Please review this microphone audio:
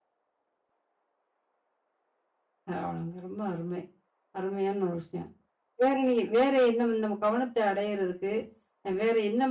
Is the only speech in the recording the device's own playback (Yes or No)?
No